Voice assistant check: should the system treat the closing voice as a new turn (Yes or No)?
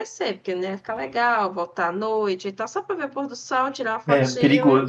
Yes